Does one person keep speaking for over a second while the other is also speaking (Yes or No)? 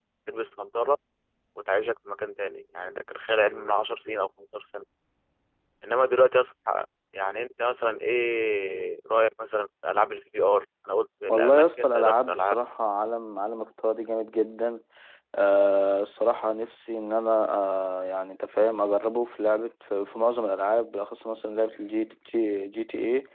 Yes